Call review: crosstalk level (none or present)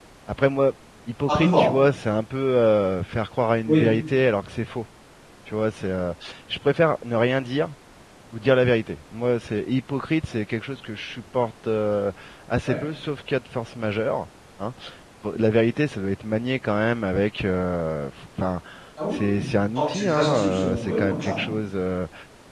present